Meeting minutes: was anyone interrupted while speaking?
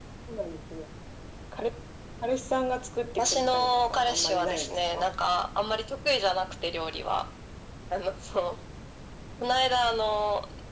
Yes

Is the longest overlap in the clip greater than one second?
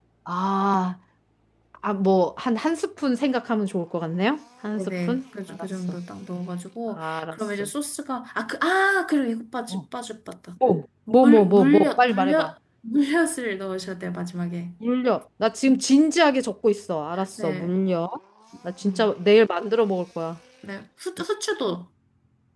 Yes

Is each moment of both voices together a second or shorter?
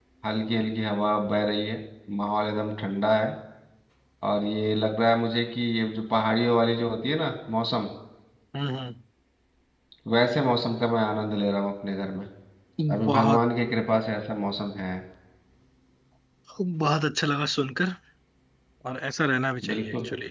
Yes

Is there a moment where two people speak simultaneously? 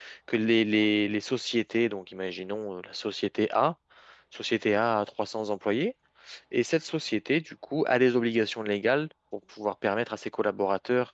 No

